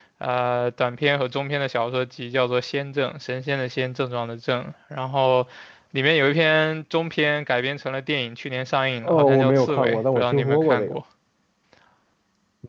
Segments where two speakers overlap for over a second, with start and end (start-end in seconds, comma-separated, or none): 9.0-11.0